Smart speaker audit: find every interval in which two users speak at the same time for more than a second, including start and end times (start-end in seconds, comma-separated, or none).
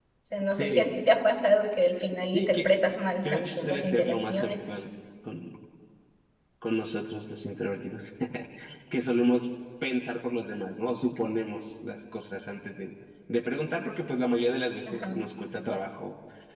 3.2-4.7